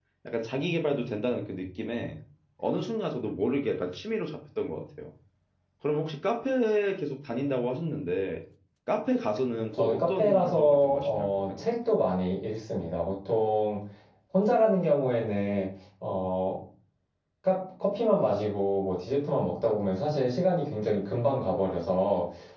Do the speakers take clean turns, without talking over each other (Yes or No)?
No